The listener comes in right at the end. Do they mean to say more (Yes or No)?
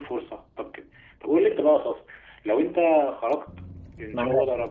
No